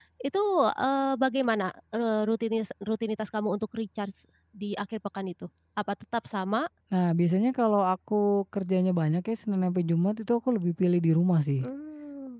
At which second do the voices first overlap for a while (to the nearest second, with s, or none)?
none